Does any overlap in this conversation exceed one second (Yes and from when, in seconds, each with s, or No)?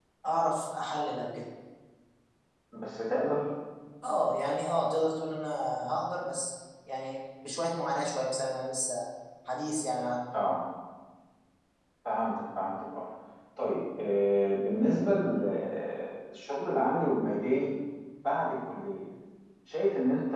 No